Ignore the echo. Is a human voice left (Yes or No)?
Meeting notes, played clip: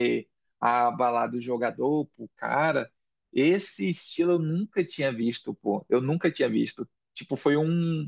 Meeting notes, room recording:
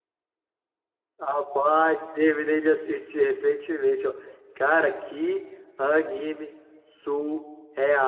Yes